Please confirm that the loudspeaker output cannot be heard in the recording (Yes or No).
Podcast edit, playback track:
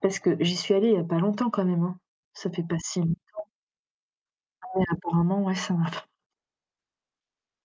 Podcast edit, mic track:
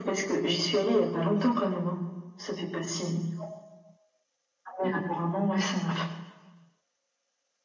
No